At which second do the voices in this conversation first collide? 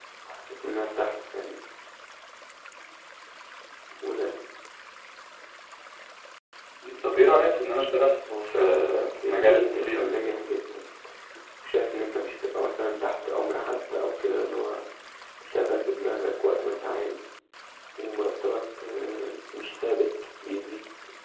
8.2 s

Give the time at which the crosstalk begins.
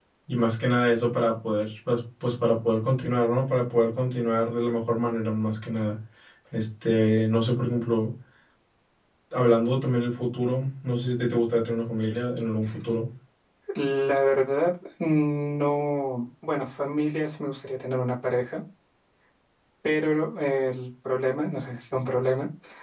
none

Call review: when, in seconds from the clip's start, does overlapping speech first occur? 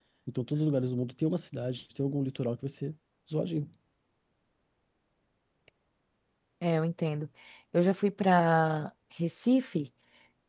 none

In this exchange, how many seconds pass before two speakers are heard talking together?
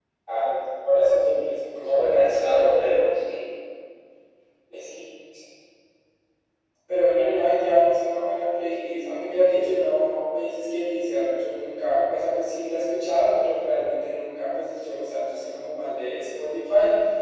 1.8 s

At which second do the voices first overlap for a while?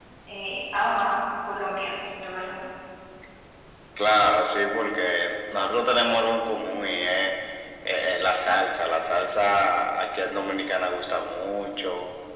none

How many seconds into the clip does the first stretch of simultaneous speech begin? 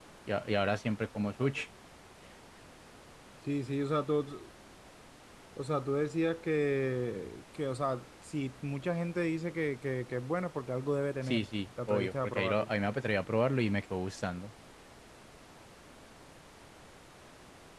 11.2 s

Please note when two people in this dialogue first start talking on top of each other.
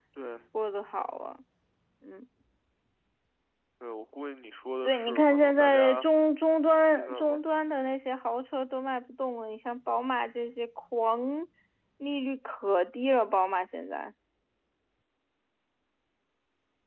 4.8 s

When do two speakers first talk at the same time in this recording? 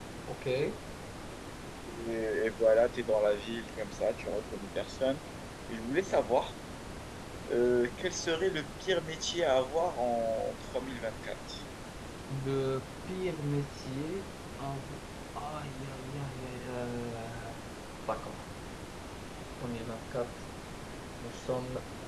none

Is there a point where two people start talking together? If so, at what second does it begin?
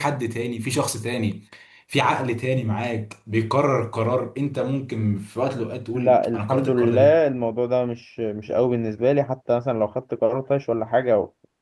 5.9 s

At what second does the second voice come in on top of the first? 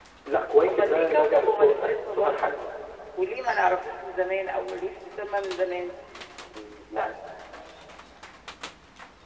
0.6 s

